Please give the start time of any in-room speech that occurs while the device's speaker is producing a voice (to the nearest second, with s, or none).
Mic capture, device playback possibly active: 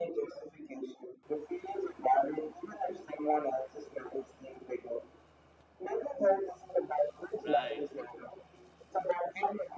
7 s